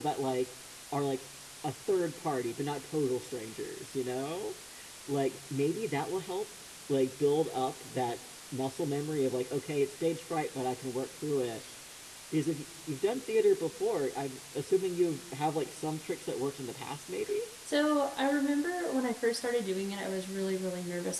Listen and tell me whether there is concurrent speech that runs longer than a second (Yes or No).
No